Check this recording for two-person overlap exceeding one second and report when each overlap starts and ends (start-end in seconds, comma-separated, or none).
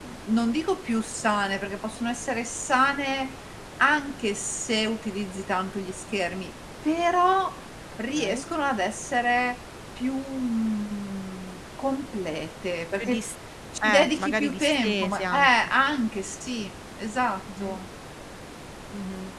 13.8-15.5